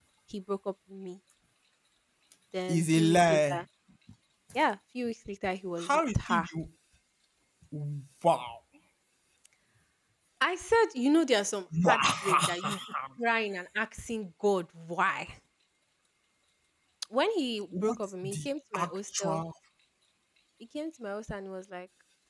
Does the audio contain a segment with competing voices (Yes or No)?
Yes